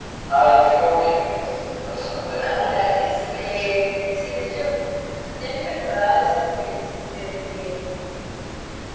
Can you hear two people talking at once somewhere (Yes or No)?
Yes